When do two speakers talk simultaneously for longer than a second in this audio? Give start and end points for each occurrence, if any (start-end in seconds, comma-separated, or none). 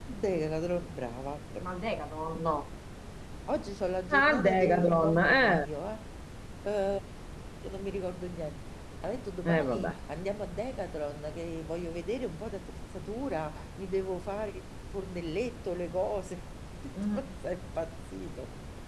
4.1-5.7